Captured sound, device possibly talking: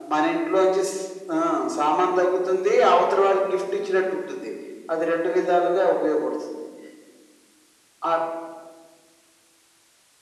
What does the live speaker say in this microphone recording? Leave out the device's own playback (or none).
none